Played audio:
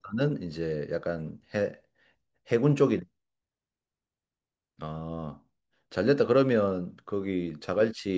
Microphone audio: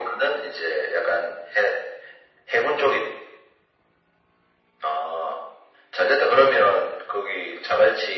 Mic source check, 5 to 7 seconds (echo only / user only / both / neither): echo only